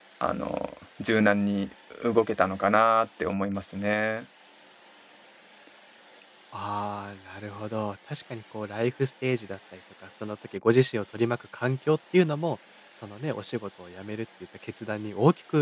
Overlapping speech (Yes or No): No